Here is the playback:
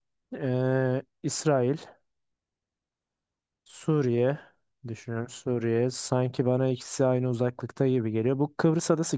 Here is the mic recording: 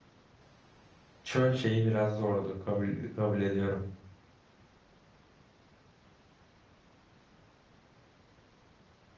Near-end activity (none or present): present